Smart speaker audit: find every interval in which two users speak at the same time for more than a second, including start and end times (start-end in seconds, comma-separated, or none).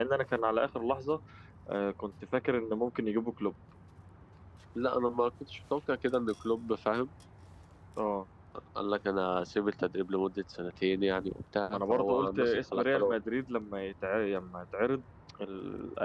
11.7-13.2